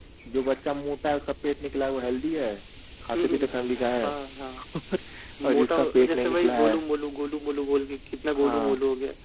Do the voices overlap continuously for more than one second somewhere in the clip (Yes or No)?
Yes